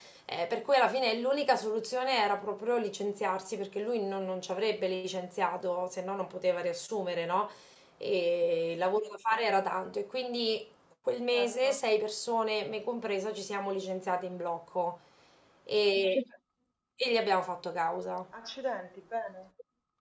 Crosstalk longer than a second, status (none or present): none